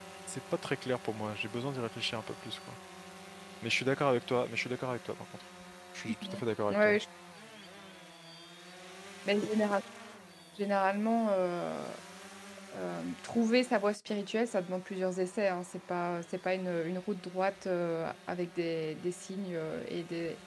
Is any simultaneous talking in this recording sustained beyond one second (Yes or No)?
No